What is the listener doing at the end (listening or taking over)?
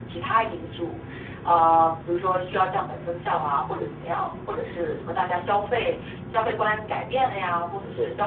listening